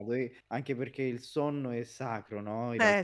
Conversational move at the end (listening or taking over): listening